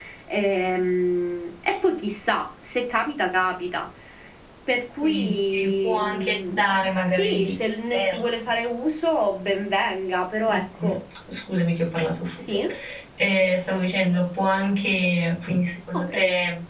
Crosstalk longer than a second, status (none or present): present